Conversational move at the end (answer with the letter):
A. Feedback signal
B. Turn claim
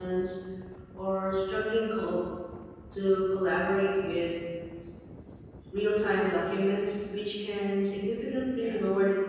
A